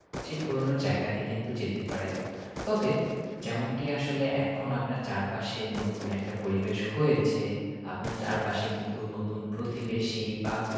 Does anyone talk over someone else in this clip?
No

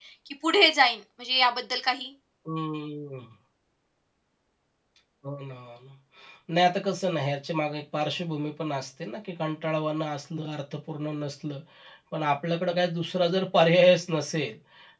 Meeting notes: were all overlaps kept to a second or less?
Yes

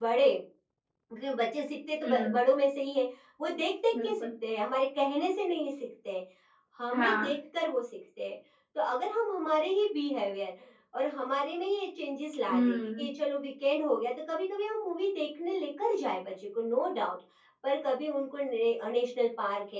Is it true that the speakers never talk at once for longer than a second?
Yes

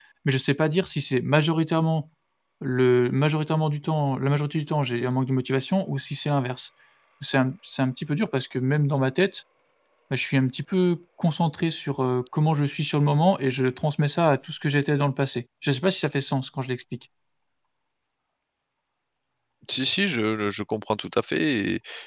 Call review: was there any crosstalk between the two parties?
No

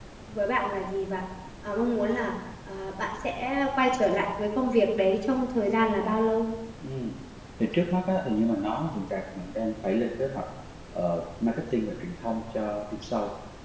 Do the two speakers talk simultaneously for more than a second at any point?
No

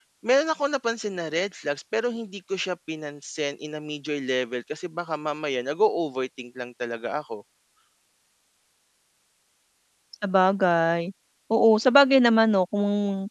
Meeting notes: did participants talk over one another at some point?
No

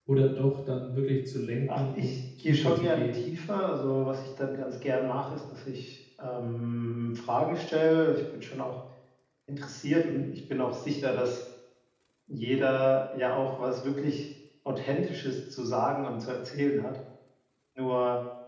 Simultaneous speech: Yes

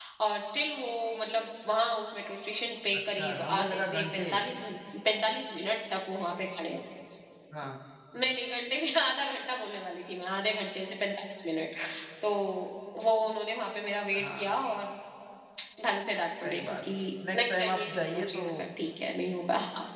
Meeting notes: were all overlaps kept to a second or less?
No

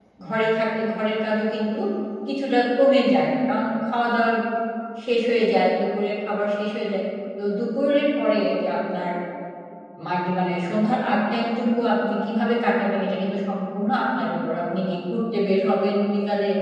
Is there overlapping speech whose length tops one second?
No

